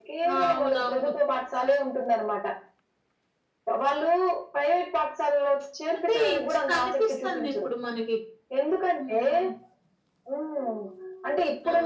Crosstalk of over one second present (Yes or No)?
Yes